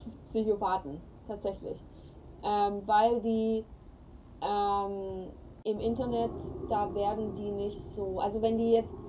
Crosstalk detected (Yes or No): No